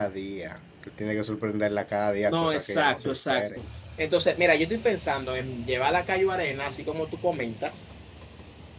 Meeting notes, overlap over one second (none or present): present